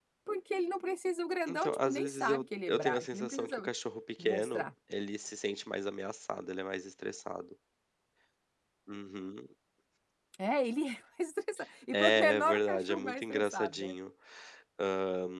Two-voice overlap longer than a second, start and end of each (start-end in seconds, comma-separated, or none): 1.5-3.7, 11.9-13.9